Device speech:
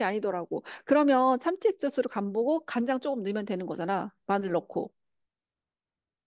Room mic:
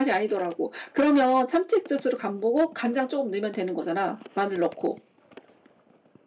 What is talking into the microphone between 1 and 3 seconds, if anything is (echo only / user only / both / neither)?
echo only